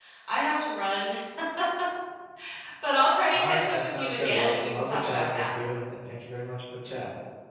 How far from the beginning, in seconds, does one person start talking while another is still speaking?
3.3 s

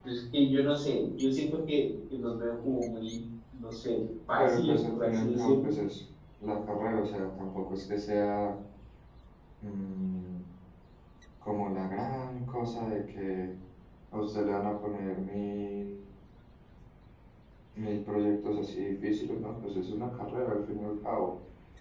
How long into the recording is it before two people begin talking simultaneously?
4.4 s

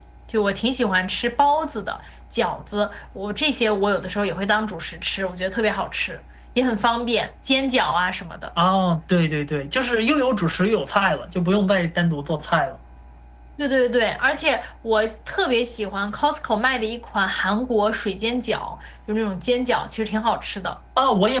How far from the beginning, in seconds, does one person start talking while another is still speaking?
none

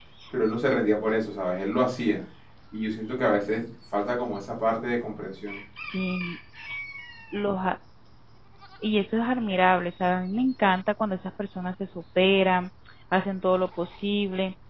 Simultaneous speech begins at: none

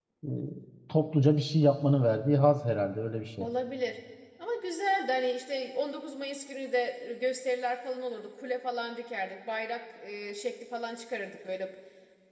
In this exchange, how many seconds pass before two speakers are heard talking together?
none

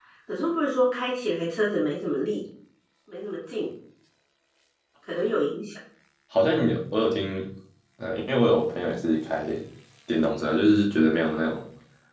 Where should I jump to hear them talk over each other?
none

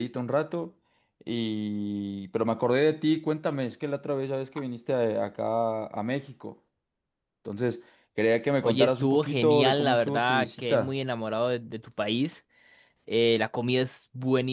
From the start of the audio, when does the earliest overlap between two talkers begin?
8.6 s

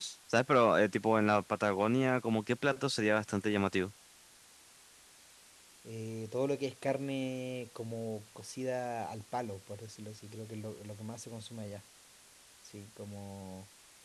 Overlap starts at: none

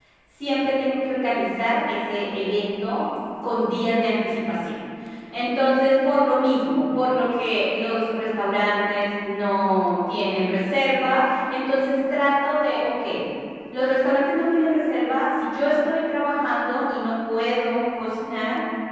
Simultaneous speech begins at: none

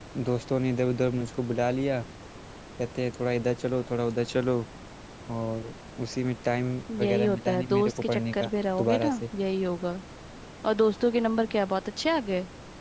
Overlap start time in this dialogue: 6.9 s

